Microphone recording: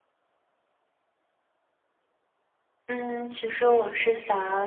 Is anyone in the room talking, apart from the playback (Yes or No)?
Yes